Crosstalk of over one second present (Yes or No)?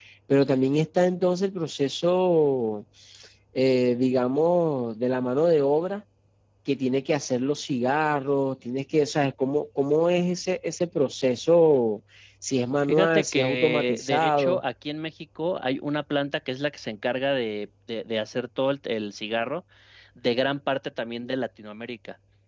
Yes